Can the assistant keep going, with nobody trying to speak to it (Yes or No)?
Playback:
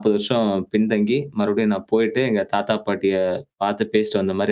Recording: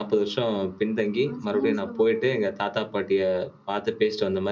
No